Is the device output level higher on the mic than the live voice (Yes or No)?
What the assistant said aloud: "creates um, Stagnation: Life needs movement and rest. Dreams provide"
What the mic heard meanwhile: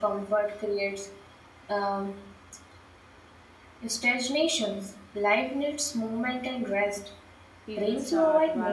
Yes